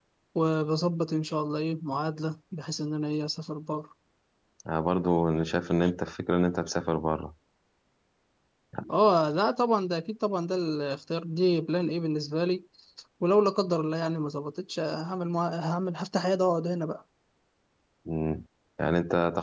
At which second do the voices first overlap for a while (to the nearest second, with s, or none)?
none